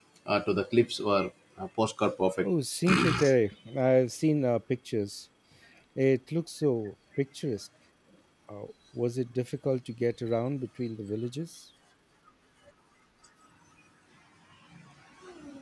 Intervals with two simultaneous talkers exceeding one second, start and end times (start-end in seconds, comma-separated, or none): none